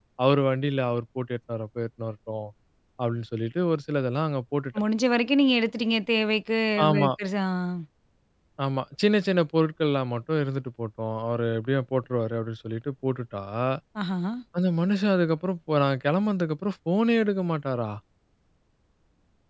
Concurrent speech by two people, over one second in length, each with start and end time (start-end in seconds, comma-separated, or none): none